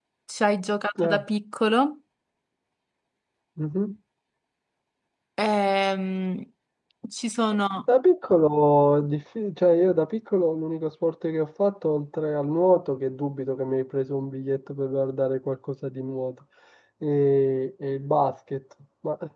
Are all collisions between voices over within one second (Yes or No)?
Yes